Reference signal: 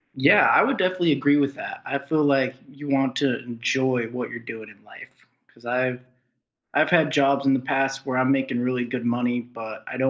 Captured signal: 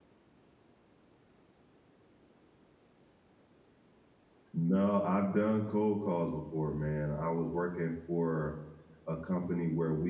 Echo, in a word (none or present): none